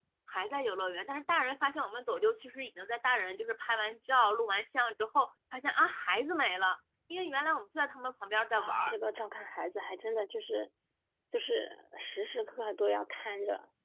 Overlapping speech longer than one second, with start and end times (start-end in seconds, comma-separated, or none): none